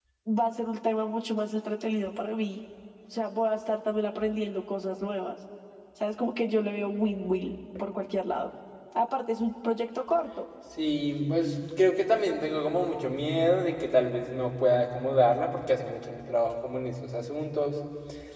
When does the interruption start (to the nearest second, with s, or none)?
none